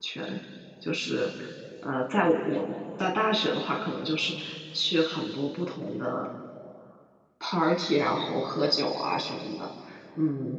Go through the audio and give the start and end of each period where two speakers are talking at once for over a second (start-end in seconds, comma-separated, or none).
none